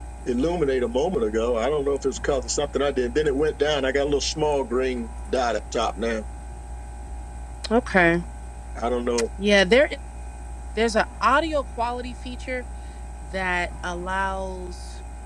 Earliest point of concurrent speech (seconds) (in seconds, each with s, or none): none